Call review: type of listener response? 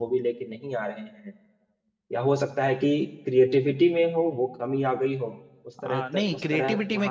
taking over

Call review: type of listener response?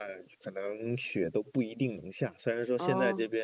listening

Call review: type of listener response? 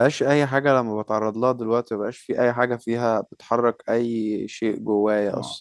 taking over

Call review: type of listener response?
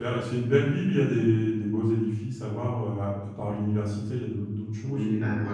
taking over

